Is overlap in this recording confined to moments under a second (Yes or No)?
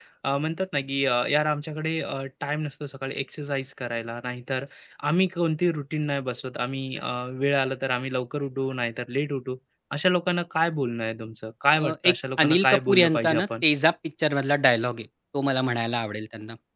No